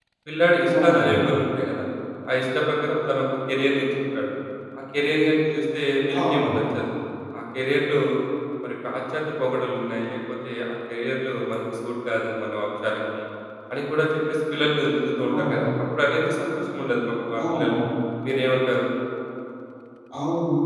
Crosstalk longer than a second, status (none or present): none